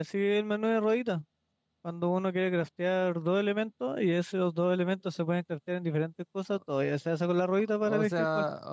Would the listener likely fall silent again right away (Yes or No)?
No